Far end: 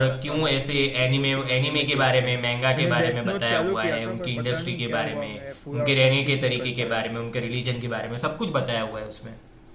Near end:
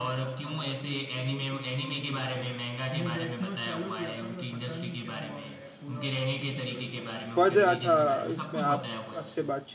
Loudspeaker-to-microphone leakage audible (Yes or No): Yes